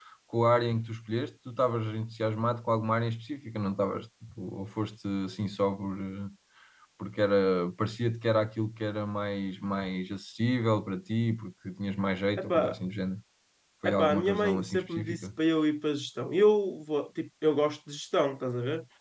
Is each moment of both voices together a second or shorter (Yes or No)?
No